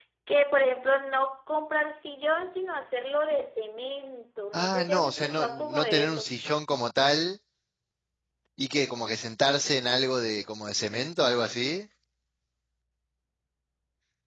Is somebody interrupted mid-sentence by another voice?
Yes, from 4.5 s

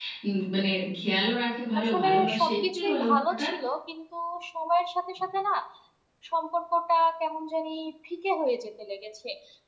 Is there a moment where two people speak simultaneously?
Yes, from 1.8 s

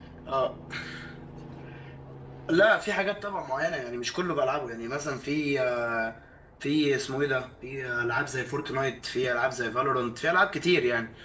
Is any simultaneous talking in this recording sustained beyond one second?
No

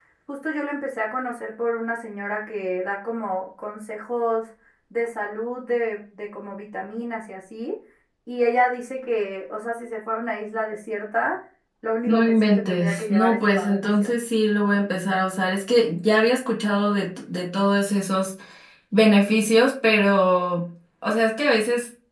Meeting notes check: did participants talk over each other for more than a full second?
Yes, from 12.1 s

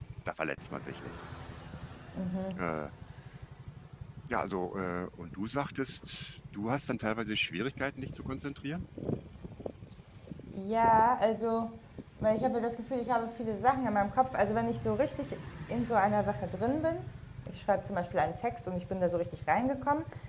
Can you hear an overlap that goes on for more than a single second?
No

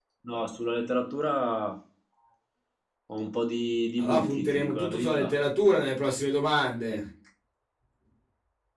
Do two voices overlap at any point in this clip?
Yes, from 4.0 s

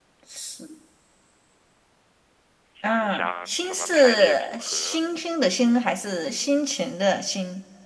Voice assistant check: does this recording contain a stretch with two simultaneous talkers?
Yes, from 2.8 s

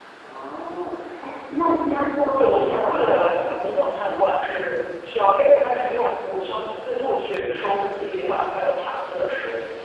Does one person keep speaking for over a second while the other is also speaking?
Yes, from 2.4 s

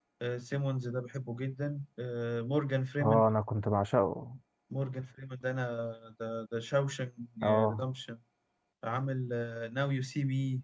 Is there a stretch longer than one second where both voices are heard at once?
No

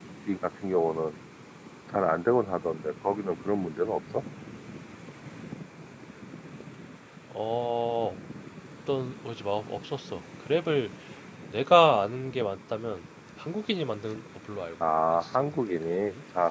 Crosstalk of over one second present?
Yes, from 14.8 s

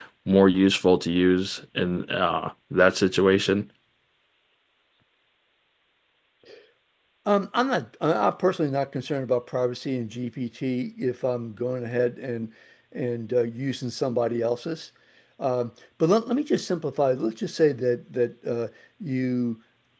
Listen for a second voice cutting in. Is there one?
No

